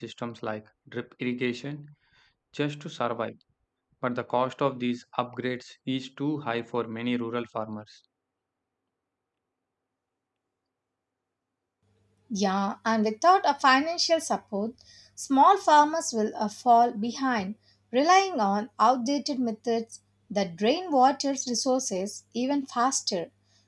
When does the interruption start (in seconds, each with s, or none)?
none